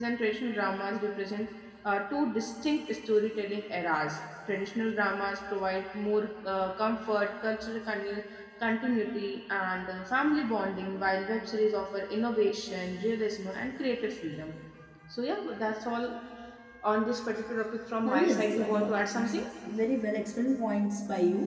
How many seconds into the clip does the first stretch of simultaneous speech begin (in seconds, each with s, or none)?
18.0 s